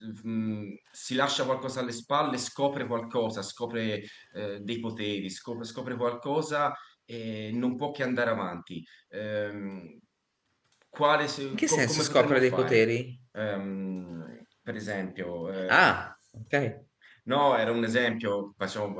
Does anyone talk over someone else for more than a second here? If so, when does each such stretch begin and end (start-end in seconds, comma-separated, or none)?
11.5-12.8